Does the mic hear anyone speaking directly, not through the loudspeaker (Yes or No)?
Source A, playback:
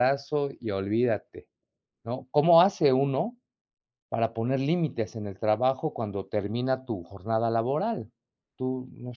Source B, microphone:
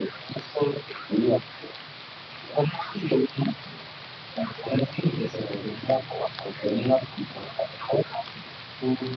No